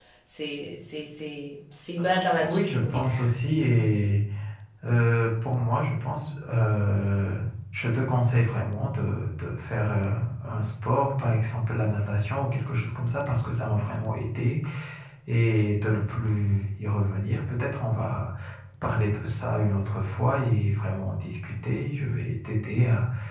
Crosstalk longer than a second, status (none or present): present